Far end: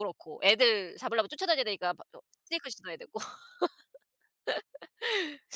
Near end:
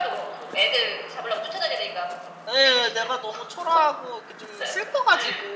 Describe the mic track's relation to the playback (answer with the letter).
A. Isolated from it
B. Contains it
B